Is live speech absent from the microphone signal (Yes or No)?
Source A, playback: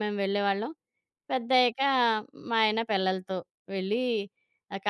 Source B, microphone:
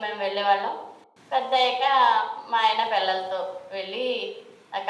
Yes